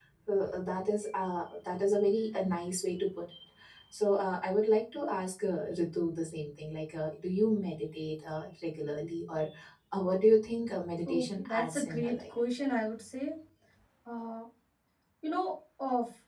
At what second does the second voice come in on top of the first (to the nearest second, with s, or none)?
11 s